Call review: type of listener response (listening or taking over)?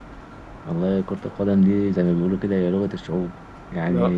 listening